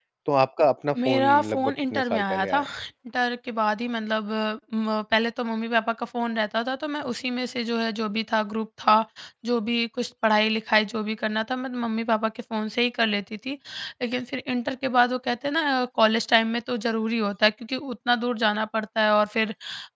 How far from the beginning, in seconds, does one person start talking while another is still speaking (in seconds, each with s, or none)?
1.0 s